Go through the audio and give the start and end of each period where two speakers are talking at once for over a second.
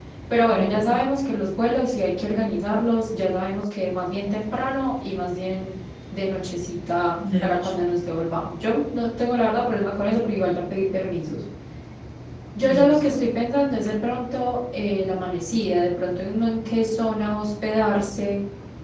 none

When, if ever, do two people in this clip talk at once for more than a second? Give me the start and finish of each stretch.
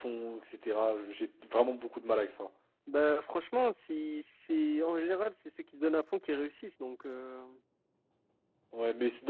none

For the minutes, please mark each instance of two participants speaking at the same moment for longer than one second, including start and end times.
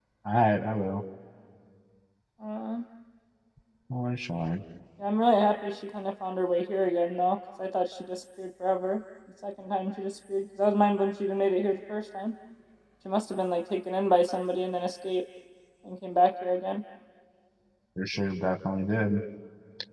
none

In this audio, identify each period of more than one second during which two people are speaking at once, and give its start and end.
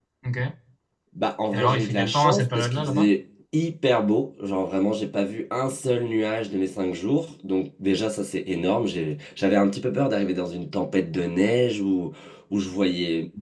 1.5-3.1

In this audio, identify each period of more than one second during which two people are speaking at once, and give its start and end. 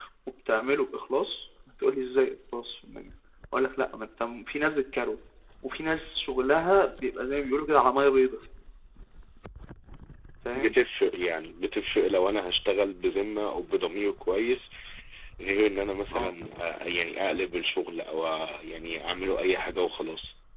none

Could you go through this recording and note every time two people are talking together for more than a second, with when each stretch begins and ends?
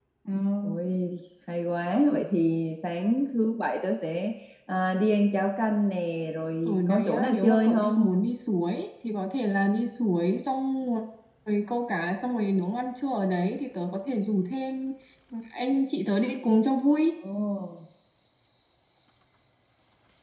6.7-8.1

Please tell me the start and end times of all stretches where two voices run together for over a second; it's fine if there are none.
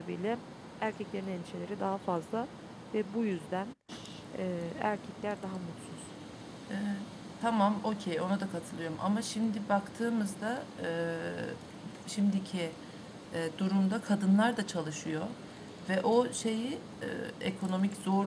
none

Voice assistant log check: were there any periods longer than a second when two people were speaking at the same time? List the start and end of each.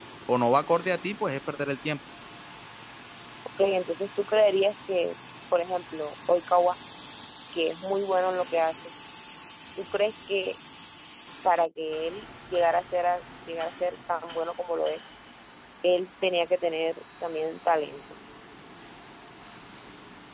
none

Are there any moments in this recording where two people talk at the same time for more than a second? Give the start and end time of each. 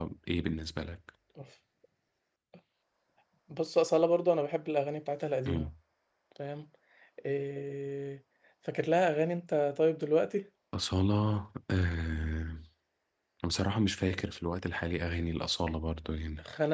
none

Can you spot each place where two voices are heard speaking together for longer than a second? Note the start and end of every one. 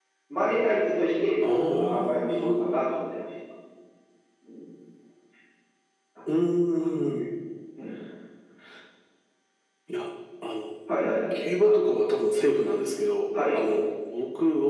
1.4-2.7

